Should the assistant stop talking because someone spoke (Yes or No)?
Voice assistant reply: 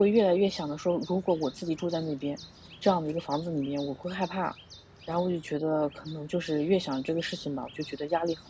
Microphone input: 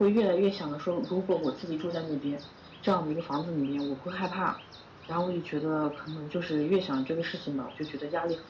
No